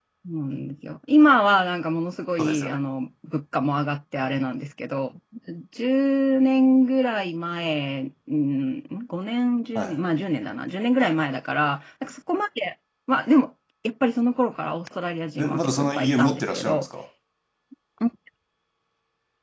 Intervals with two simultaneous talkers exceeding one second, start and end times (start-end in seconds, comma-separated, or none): 15.4-16.9